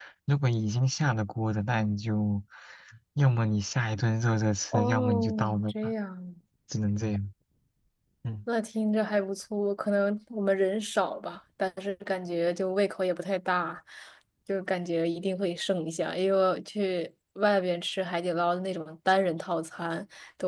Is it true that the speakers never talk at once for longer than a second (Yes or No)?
No